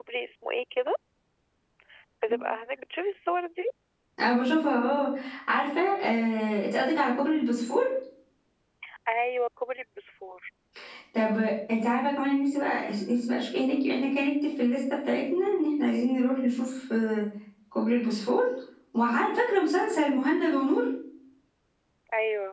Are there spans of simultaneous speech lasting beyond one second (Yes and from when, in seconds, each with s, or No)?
No